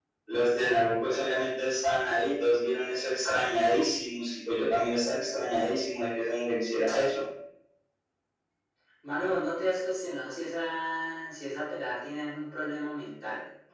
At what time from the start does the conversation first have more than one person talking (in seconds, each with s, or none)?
none